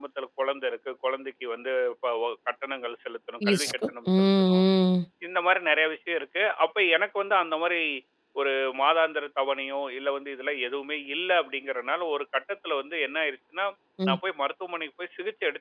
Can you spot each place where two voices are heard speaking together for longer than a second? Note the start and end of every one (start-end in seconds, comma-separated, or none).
3.4-4.7